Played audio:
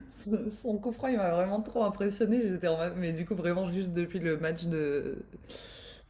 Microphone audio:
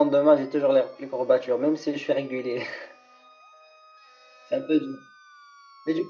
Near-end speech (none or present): present